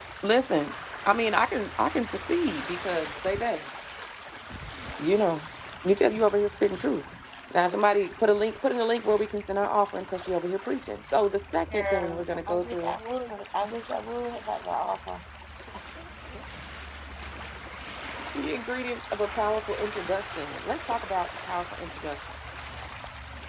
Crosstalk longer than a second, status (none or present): present